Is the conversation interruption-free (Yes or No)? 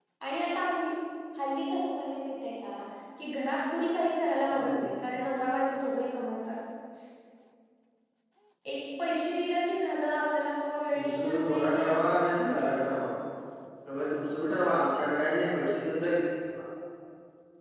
No